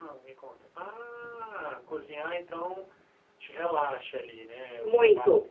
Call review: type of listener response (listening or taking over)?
listening